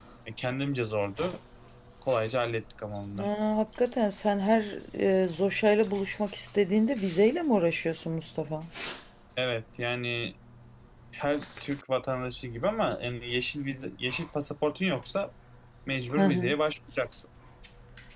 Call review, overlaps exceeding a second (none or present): none